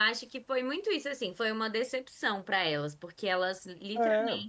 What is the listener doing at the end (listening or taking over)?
listening